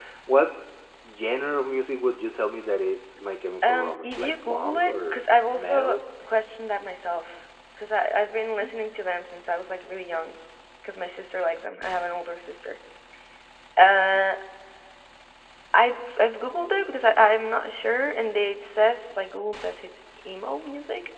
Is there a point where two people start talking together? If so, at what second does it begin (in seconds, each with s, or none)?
3.6 s